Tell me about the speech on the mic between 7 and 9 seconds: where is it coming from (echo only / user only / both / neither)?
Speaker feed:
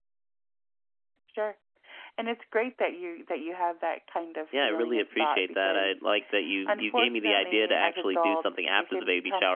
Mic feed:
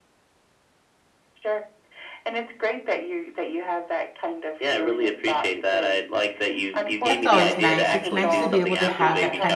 both